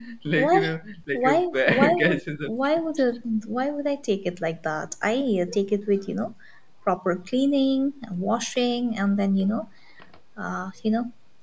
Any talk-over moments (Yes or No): Yes